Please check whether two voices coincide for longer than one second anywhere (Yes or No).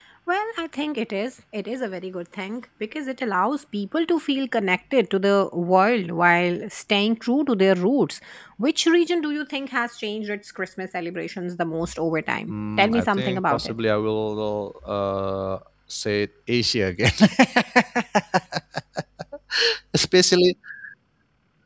Yes